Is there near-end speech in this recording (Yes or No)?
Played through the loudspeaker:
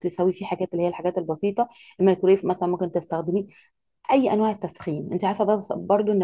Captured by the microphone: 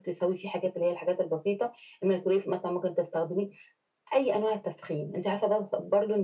No